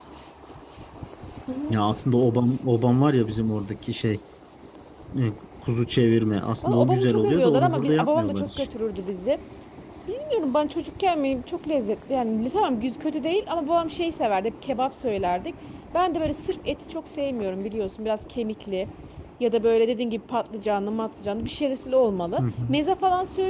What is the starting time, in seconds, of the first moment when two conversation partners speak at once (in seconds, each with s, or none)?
6.6 s